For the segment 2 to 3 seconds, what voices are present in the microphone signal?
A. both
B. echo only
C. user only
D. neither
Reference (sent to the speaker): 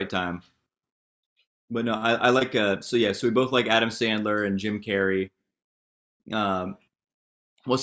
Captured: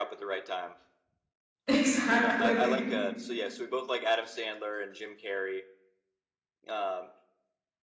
A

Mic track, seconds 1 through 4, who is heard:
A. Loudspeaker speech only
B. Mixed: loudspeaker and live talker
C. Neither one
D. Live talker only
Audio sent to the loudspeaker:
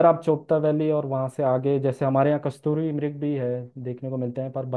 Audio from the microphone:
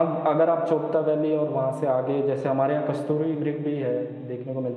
A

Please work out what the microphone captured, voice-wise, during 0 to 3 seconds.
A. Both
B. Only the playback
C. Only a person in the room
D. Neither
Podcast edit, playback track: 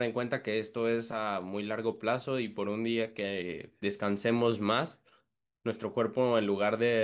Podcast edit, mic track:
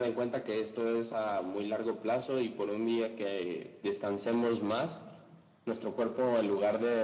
B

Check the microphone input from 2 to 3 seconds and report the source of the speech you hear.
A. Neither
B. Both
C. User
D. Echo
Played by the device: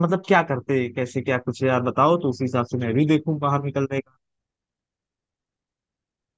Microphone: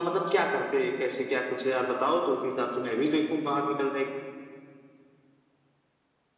D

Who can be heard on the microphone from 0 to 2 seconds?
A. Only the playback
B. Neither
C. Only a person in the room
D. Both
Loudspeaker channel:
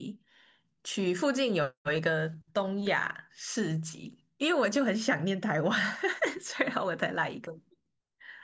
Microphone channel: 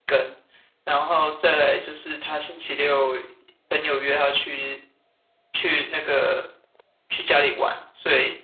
C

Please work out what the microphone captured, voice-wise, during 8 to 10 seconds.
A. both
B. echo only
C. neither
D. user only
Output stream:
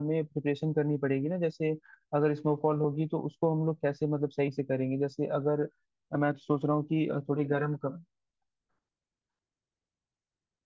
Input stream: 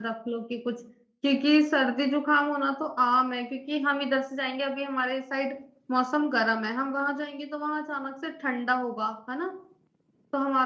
D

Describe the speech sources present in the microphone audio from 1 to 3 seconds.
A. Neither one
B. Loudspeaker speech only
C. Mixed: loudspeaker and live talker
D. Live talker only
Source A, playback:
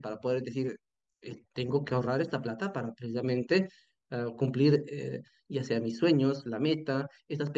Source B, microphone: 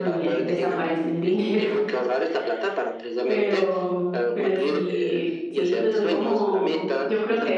C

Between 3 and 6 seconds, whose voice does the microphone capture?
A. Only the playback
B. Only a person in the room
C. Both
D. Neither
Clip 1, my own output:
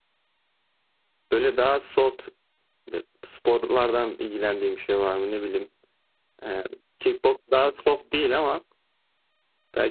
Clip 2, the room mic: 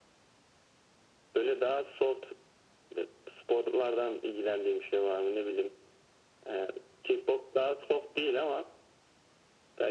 A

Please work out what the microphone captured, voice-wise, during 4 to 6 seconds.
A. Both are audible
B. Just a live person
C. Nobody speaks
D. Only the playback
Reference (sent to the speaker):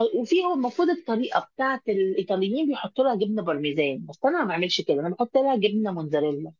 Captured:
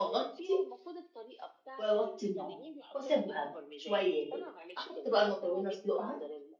A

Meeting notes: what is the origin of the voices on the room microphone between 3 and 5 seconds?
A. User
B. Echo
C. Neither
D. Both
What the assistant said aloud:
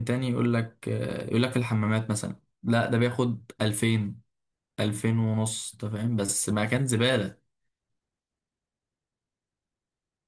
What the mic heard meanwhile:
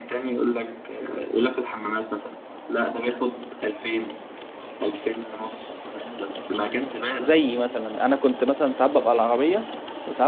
B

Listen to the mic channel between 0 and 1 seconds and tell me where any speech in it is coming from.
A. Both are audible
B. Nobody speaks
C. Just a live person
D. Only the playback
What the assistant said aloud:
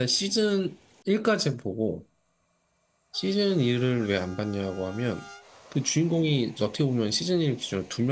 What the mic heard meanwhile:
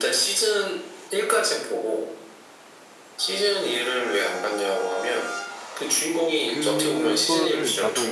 D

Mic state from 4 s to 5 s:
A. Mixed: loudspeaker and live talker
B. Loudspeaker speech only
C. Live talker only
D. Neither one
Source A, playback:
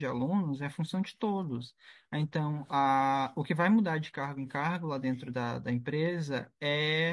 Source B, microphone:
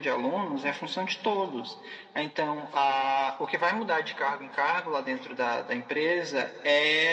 B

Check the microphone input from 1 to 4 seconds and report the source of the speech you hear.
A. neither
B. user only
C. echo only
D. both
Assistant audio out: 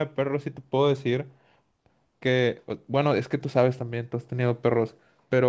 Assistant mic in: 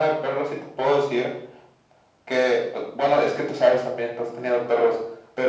C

